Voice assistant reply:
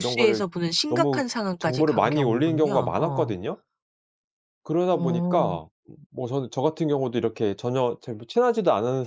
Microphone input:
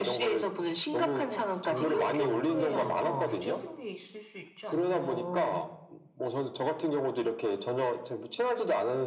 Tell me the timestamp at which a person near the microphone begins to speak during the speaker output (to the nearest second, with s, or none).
1 s